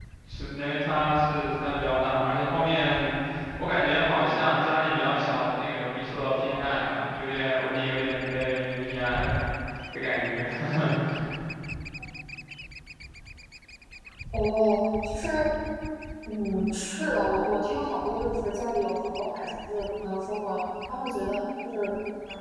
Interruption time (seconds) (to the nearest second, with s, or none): none